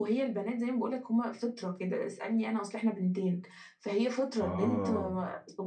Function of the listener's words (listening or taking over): listening